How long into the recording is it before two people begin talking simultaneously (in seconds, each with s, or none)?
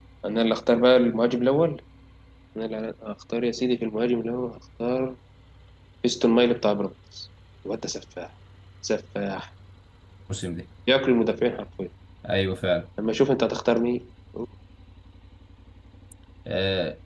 none